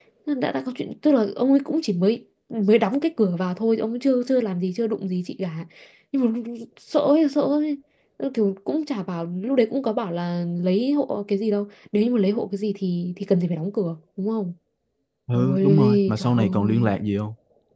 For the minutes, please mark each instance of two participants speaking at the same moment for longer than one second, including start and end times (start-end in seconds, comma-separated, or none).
15.3-16.9